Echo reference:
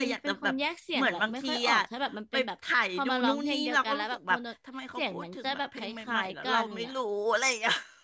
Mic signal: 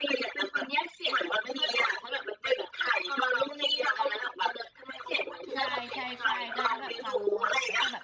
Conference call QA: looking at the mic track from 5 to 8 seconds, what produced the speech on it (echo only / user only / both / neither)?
both